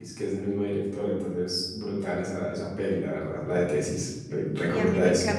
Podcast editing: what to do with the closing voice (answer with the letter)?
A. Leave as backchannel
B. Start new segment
B